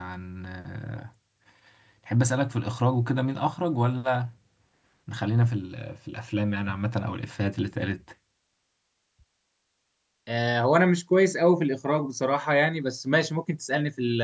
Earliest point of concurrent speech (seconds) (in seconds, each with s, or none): none